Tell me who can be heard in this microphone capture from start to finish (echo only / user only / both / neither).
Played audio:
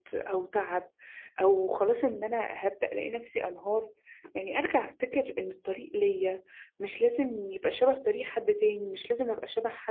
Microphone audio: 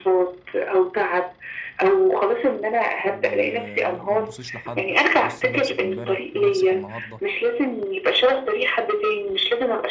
both